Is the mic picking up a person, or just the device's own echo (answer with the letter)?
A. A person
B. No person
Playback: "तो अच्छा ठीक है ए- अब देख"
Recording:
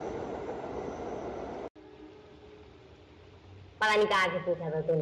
A